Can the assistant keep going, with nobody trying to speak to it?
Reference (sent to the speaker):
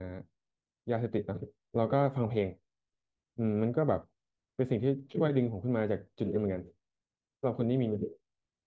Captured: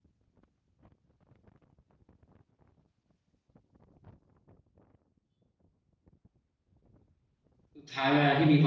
No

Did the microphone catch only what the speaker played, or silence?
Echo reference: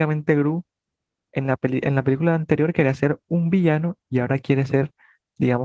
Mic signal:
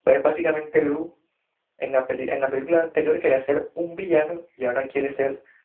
Yes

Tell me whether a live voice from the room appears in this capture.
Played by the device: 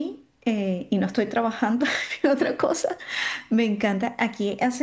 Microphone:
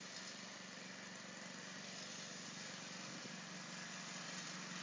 No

